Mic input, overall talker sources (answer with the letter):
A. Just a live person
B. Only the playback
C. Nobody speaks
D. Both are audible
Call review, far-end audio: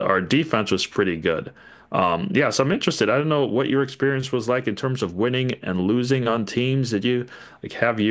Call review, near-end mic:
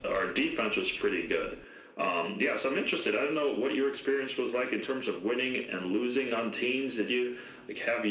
B